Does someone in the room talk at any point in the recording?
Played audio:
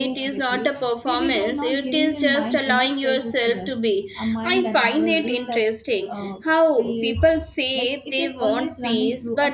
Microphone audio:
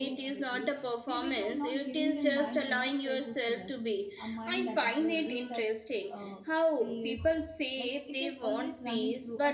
No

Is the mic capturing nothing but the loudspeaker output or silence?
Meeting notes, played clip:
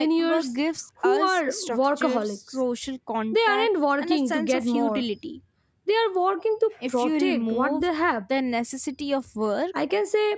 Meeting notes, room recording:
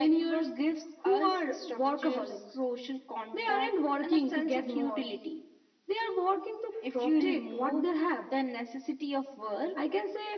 Yes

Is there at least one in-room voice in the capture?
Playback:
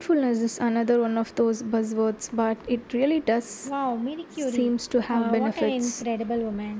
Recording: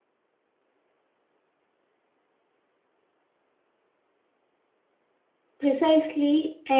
Yes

